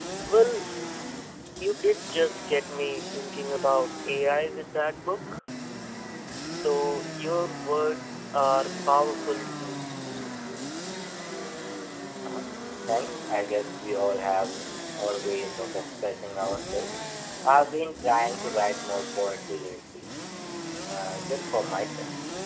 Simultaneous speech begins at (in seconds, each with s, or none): none